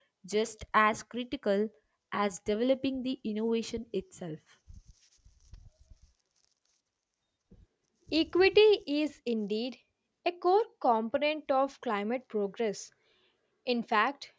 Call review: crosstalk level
none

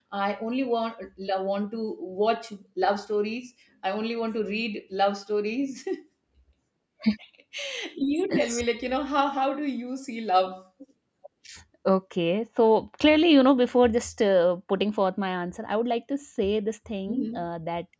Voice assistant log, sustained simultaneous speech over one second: none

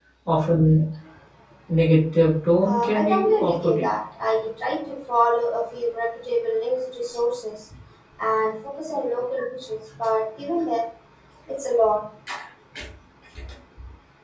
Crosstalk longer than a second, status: present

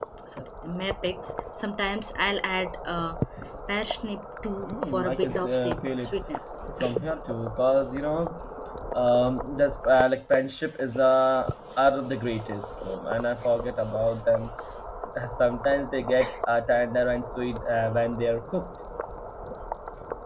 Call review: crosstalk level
present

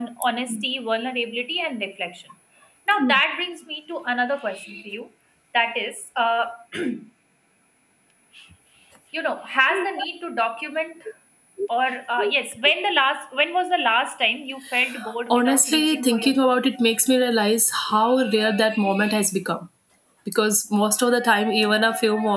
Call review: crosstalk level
present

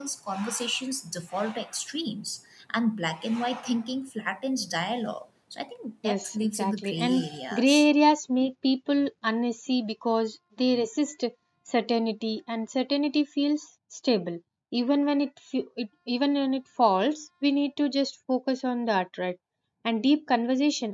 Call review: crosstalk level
present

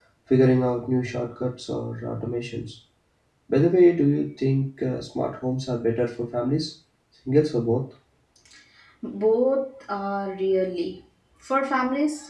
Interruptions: none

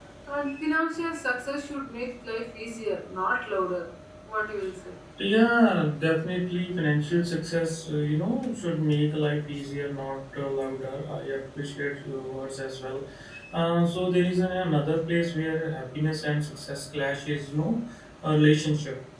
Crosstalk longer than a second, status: none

